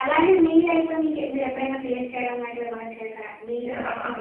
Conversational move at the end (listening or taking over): taking over